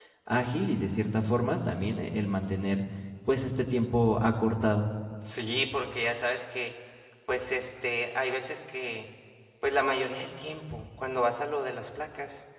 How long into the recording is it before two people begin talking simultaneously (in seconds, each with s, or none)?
none